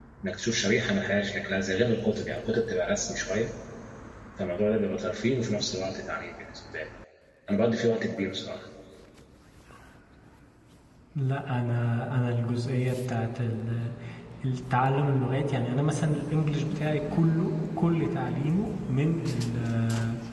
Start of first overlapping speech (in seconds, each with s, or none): none